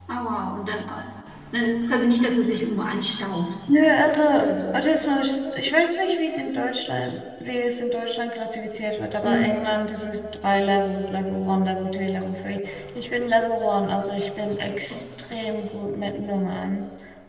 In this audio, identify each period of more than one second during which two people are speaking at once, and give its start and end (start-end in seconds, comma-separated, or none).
none